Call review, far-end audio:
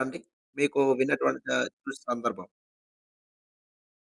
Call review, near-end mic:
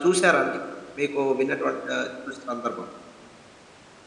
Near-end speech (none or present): none